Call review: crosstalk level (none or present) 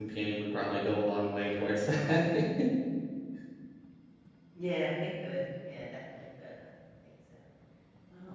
none